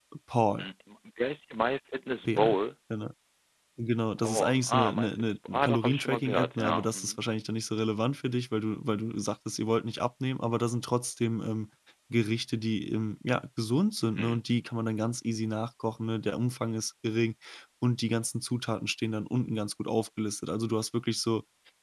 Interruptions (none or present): present